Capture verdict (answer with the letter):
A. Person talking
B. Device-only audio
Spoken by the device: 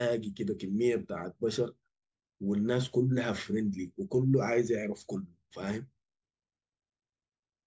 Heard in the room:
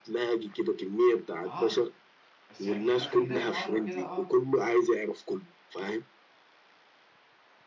A